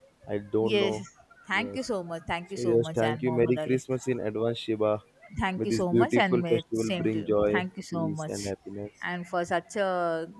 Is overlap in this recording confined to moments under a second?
No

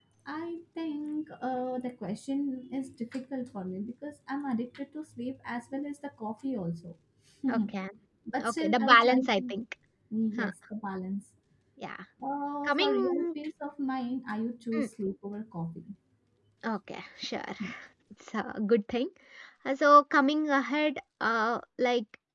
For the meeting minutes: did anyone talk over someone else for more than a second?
Yes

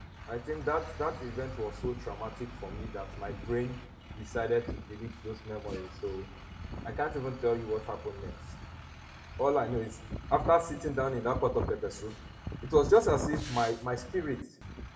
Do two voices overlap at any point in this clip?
No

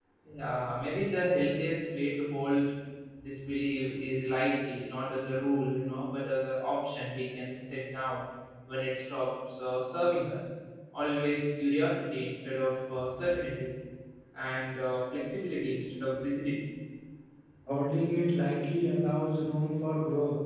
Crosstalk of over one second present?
No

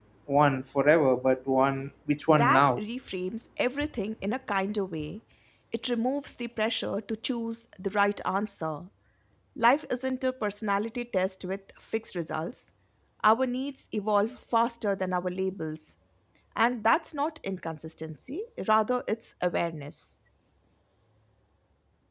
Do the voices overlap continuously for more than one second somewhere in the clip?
No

